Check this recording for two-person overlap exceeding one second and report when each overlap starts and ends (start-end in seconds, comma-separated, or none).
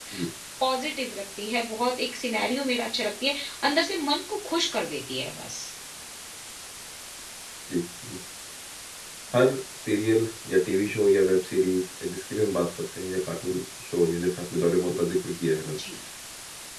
none